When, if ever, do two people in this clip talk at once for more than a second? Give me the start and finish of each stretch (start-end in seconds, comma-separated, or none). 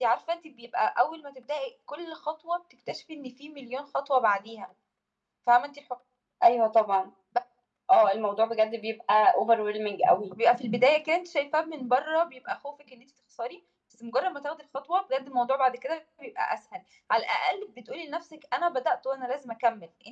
none